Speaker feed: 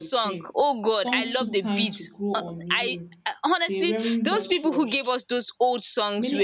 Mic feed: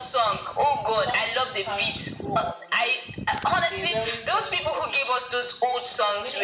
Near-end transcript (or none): none